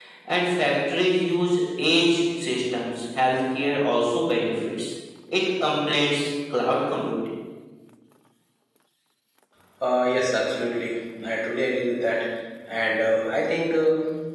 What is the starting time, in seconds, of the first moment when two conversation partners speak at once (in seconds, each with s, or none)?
none